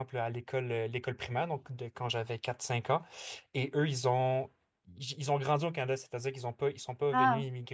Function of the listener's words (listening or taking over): listening